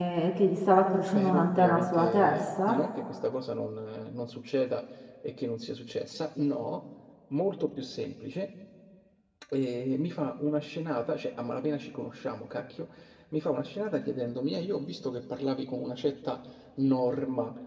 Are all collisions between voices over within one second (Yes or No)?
No